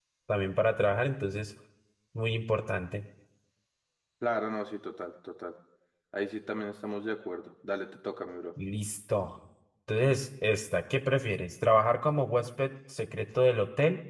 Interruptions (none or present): none